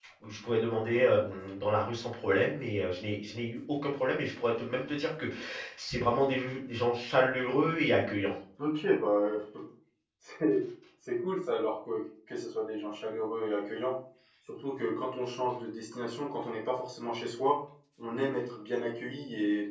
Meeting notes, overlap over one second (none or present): none